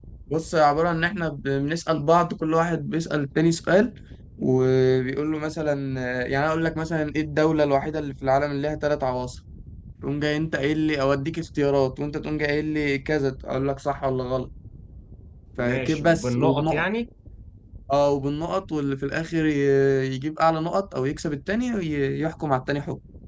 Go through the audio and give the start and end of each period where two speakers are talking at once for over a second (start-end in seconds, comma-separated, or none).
15.6-16.8